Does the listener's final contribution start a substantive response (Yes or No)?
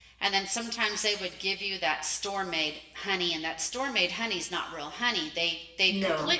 No